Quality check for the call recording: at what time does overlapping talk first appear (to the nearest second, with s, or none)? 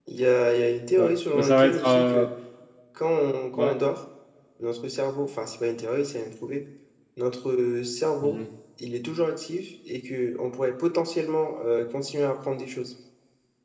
1 s